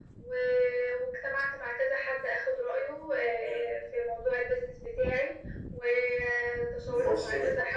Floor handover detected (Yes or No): No